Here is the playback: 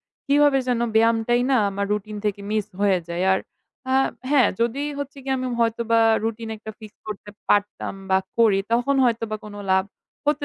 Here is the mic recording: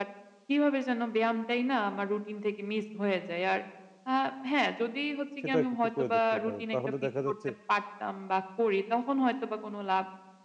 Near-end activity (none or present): present